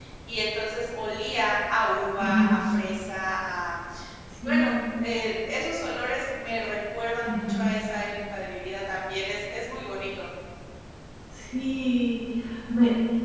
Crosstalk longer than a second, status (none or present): none